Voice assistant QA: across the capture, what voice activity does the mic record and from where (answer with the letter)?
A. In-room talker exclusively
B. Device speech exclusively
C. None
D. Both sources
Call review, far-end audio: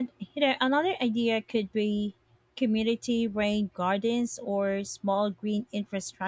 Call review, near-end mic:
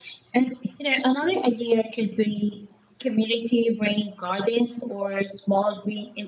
B